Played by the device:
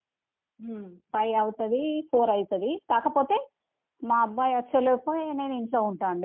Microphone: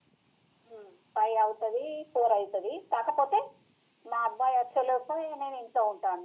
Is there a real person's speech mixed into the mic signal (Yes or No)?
No